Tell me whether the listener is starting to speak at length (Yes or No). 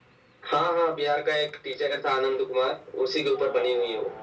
Yes